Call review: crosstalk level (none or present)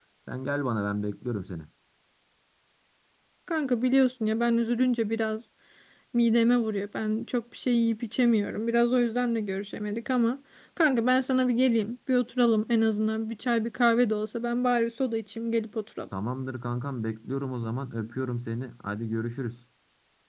none